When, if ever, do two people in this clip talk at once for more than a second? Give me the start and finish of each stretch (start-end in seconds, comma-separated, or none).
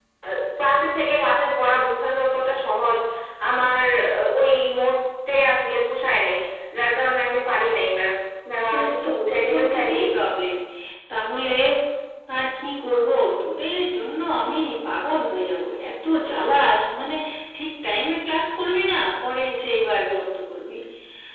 8.7-10.0